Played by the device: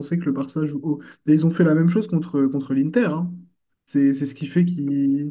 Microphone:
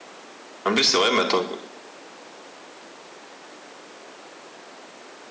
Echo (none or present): none